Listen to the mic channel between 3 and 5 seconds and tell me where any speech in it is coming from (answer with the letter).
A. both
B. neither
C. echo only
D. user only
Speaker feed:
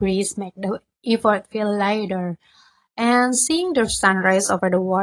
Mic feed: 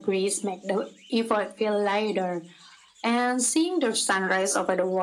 C